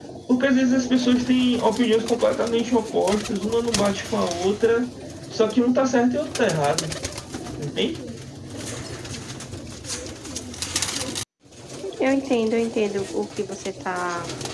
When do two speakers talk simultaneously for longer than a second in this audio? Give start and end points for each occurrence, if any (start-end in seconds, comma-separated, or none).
none